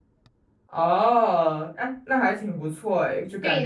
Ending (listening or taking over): taking over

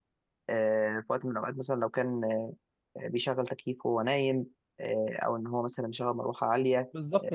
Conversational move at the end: taking over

